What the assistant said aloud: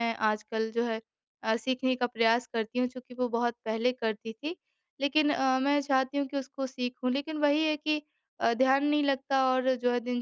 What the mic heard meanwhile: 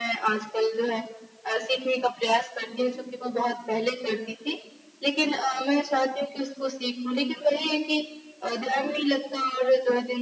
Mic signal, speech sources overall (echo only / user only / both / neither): echo only